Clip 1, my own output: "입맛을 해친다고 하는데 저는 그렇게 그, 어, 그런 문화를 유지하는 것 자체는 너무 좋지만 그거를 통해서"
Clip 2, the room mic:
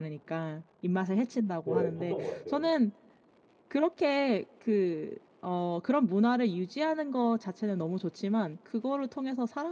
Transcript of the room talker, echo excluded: 네, 봤던 것 같아요.

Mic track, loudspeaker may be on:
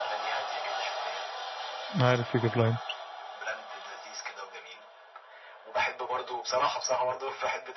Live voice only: عارف يجيب لاين

